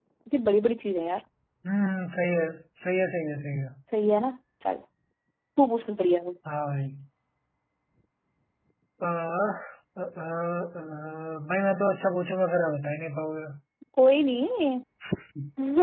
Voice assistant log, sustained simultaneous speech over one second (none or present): none